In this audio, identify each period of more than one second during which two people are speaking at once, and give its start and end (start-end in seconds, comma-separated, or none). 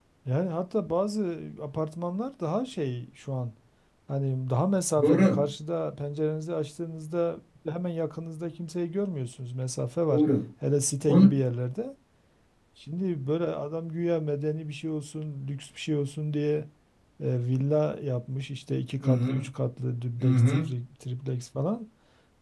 none